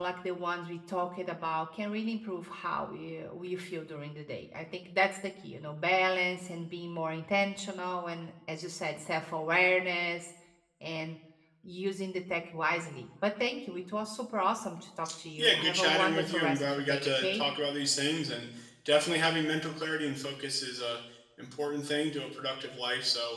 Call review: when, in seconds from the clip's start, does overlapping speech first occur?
15.4 s

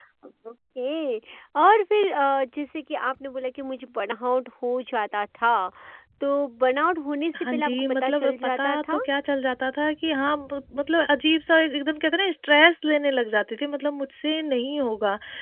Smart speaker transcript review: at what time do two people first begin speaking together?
7.3 s

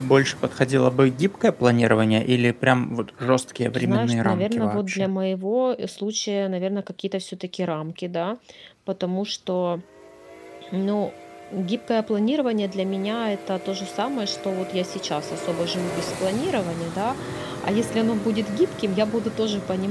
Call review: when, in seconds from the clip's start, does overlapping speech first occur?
3.7 s

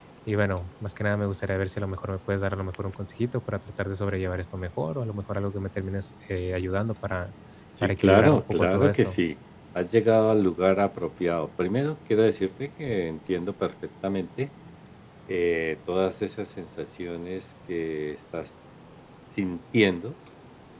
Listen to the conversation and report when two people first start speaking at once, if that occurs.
7.8 s

